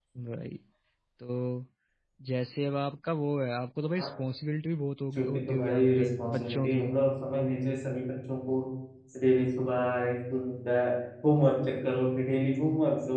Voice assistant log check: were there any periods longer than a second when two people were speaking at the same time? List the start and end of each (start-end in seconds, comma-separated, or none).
5.2-6.8